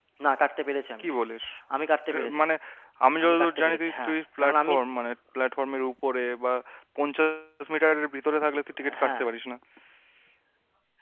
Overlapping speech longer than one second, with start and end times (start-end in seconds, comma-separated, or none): 3.2-4.7